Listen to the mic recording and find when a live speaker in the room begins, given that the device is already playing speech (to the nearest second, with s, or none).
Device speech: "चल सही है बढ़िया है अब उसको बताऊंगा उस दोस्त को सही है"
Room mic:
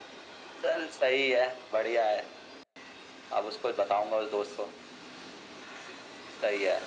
none